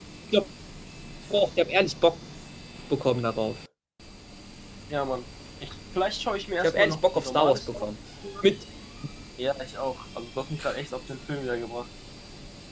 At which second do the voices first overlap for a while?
6.6 s

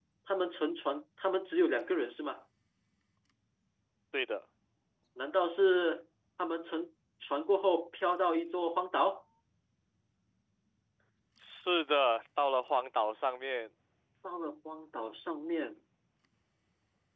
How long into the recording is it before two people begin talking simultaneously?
none

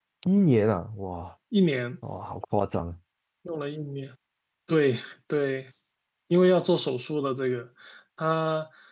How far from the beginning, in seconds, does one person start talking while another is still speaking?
none

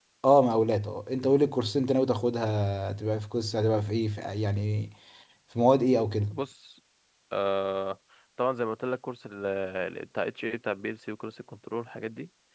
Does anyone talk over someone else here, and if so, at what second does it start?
none

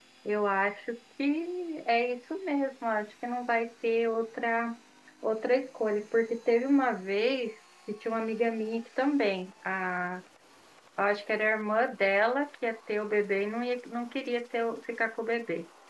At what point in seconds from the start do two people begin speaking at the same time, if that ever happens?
none

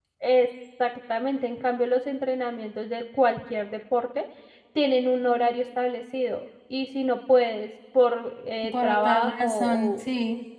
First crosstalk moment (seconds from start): 8.6 s

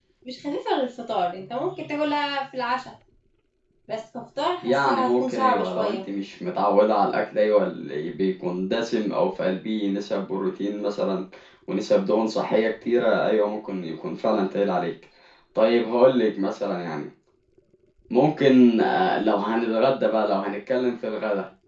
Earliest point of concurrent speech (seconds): 4.6 s

